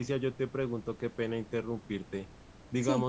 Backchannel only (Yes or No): Yes